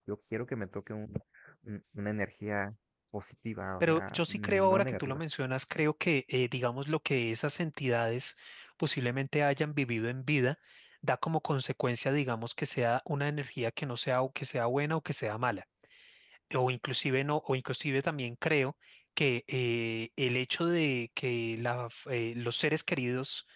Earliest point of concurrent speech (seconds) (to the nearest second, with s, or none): 4 s